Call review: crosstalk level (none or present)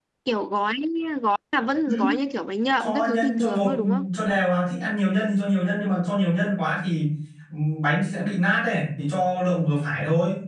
present